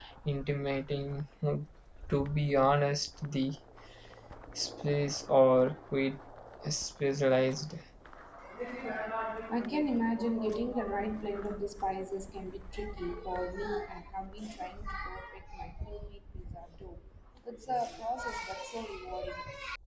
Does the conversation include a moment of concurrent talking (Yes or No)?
No